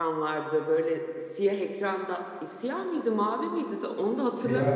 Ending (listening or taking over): listening